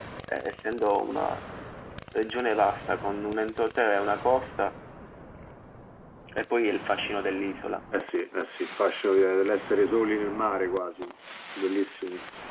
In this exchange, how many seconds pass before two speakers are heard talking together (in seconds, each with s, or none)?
none